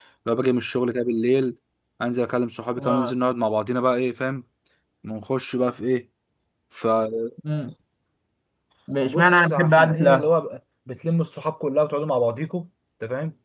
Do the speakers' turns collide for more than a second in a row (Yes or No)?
Yes